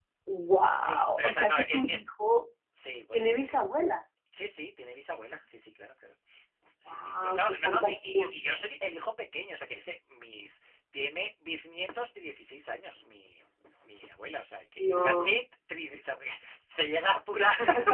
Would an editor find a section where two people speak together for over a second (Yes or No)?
Yes